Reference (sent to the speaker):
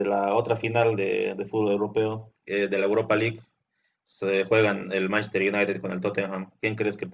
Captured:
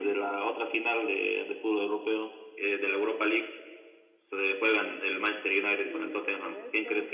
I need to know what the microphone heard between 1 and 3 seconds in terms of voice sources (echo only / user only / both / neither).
echo only